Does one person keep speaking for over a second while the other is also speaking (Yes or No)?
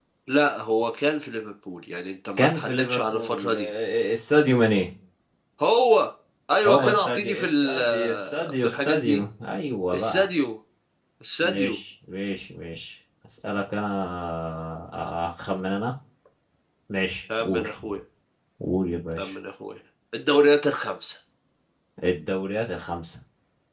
Yes